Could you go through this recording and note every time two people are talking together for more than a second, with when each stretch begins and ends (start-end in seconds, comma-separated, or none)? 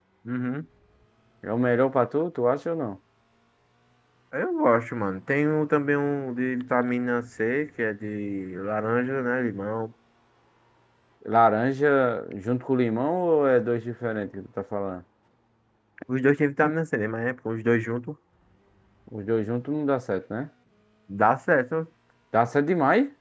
none